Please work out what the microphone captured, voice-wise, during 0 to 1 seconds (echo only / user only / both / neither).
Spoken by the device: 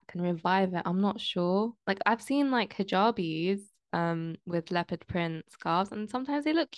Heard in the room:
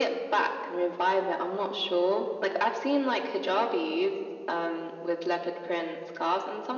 echo only